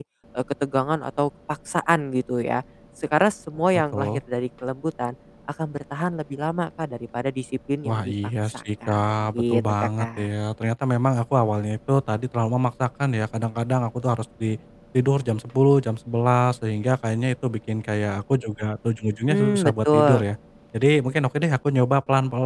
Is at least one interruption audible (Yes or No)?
Yes